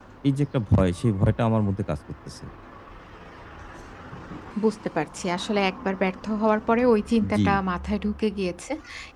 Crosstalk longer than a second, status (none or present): none